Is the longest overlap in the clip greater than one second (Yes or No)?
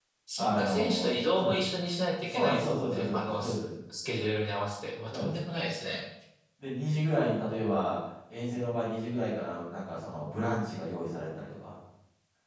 Yes